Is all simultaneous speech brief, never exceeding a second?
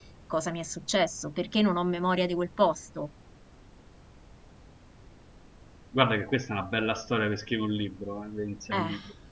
Yes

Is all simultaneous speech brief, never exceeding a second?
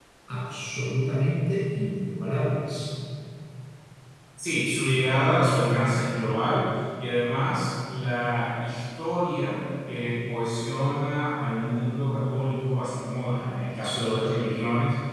Yes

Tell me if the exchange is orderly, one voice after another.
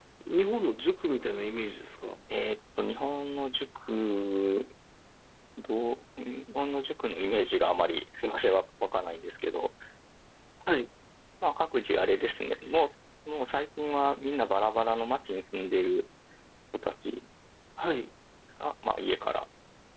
Yes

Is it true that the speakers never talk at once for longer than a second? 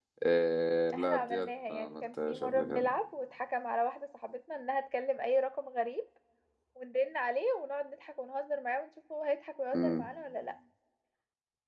No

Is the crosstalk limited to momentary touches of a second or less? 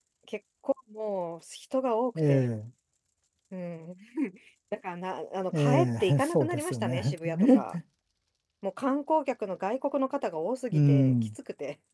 No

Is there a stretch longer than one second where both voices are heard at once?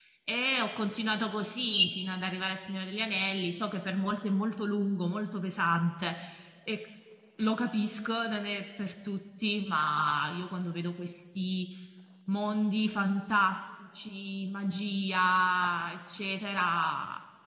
No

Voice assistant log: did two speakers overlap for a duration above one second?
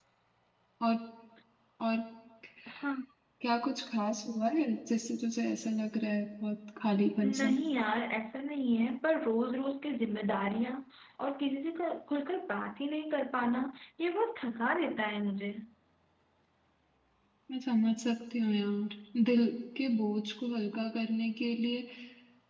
No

